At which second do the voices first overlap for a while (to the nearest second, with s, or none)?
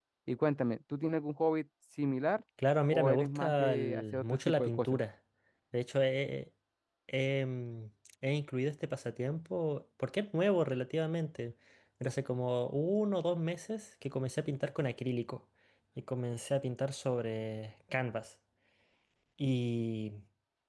3 s